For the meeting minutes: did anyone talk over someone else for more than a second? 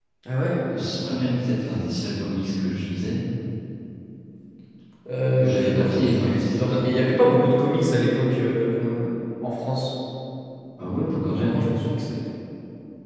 Yes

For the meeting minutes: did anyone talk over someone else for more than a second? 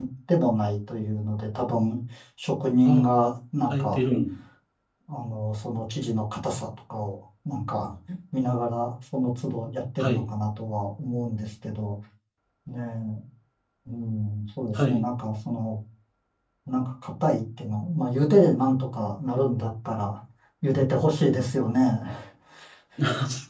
No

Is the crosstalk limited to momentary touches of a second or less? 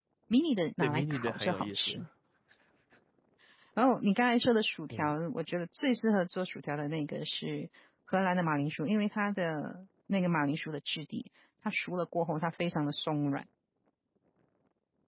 No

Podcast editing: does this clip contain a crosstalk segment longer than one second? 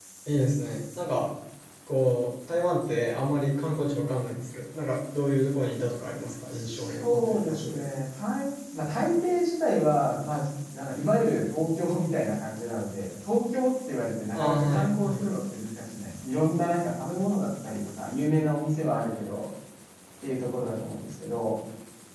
Yes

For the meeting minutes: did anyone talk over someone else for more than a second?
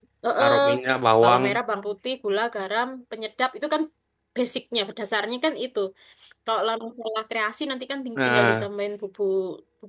No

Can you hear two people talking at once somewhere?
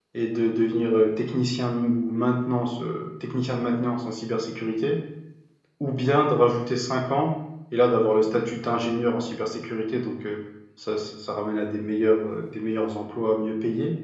No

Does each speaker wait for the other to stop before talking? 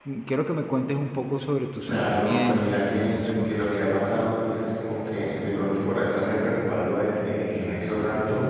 No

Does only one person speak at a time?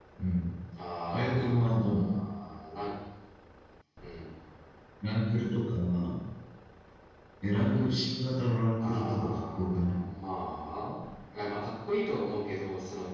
No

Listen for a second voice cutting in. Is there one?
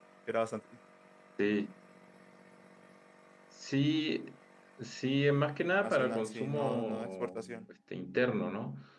Yes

